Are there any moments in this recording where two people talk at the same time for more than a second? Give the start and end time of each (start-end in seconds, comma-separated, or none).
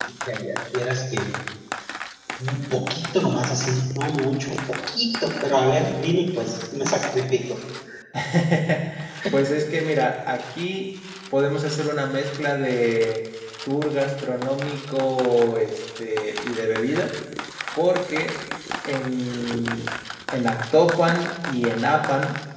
none